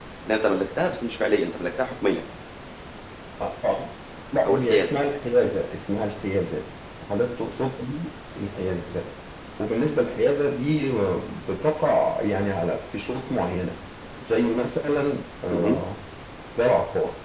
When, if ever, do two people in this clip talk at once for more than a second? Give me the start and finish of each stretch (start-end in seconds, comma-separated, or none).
none